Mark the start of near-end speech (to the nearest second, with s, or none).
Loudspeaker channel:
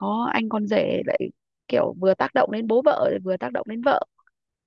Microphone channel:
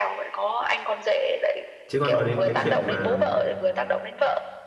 2 s